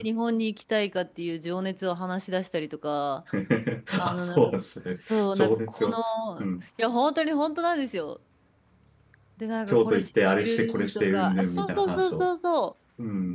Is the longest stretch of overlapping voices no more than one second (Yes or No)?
No